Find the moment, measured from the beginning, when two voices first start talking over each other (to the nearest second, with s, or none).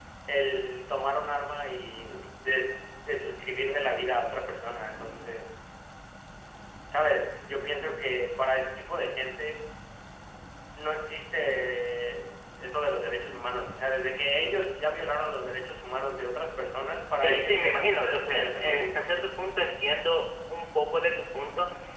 17 s